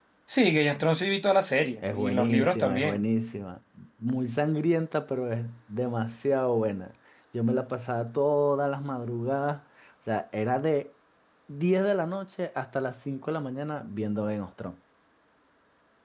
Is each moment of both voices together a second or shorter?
No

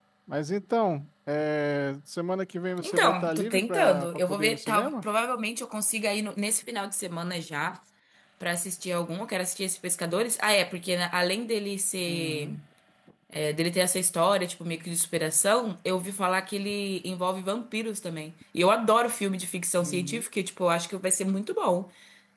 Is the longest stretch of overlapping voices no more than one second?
No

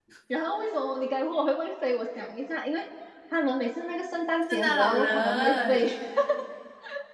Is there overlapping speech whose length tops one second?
Yes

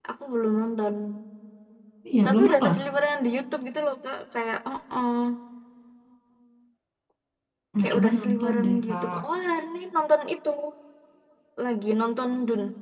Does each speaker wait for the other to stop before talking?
No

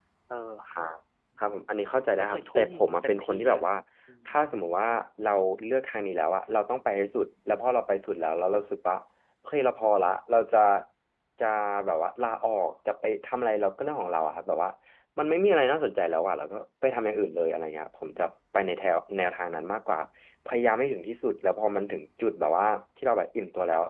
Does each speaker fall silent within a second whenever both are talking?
No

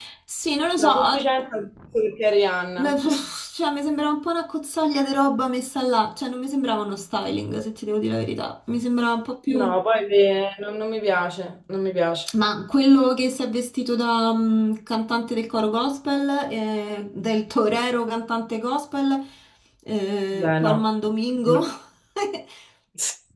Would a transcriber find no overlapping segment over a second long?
Yes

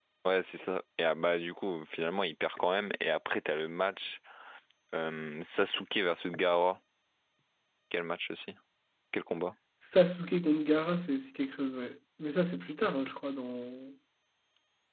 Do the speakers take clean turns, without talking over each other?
Yes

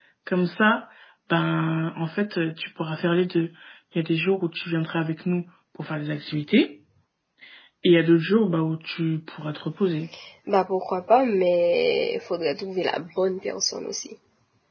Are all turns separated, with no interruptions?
Yes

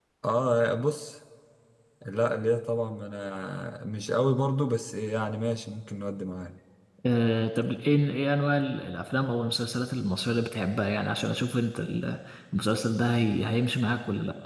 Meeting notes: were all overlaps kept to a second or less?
Yes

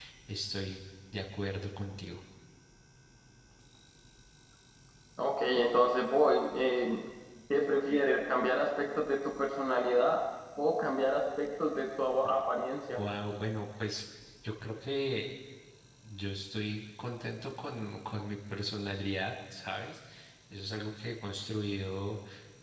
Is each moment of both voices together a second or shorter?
Yes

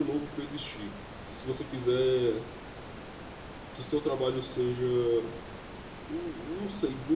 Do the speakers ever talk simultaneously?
No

